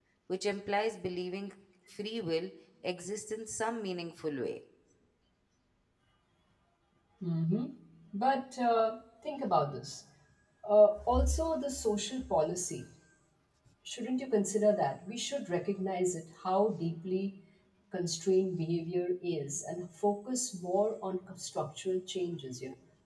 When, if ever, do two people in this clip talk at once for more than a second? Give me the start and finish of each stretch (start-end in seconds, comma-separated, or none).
none